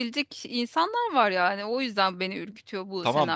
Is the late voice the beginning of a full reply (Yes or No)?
Yes